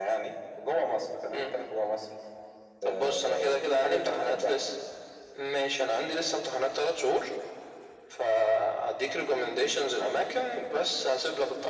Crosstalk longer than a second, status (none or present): present